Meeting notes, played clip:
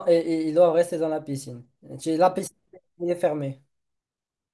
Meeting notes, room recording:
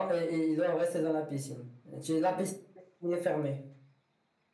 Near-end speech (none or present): none